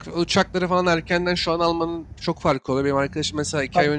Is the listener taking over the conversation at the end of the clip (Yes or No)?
No